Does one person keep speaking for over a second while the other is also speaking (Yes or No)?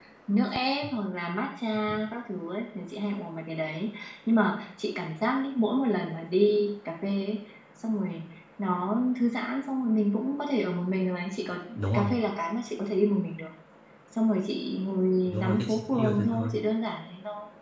Yes